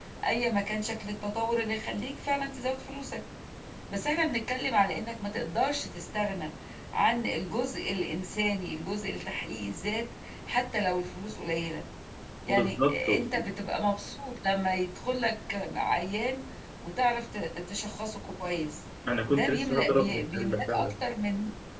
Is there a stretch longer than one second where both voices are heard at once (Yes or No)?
Yes